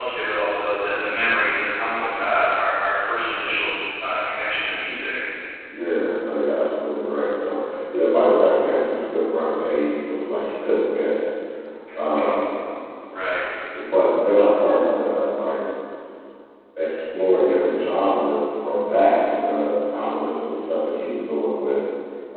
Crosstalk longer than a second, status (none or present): none